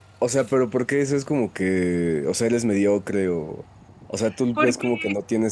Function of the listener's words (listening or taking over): listening